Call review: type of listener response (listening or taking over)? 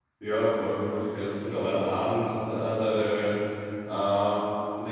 listening